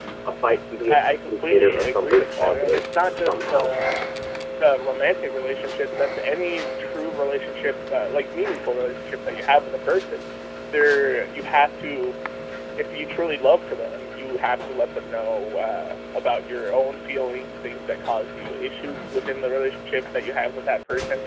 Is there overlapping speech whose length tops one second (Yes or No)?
Yes